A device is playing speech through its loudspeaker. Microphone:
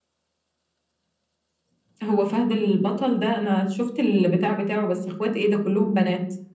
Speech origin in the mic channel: echo only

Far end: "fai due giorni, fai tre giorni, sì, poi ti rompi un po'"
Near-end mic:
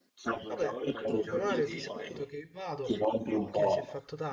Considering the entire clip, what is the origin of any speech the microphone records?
both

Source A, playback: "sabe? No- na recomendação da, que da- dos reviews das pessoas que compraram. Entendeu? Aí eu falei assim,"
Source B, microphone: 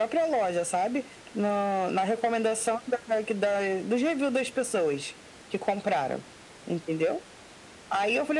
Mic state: echo only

